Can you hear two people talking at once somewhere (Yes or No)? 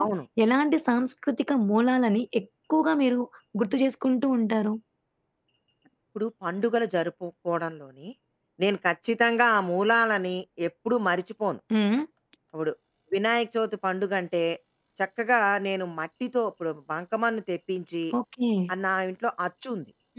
No